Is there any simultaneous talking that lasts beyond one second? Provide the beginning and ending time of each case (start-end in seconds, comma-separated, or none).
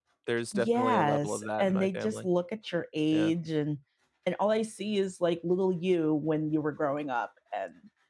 0.5-2.3